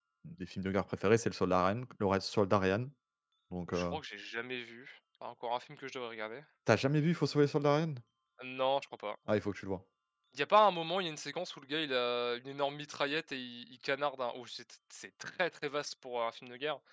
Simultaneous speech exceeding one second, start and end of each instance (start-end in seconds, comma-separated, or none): none